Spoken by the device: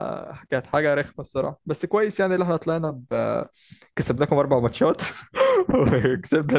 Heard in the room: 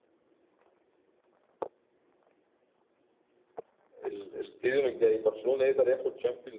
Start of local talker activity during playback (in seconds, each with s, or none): 4.1 s